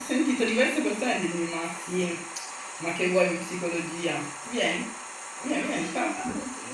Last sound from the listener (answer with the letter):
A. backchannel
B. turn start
B